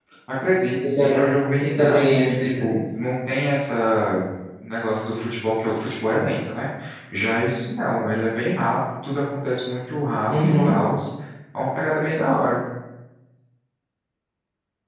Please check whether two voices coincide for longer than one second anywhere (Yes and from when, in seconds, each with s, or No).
Yes, from 1.0 s